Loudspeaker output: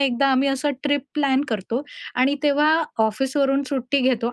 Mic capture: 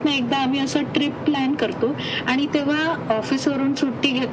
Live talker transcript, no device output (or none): none